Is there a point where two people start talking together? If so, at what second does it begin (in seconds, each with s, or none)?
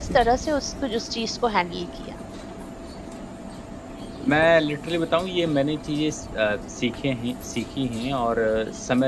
none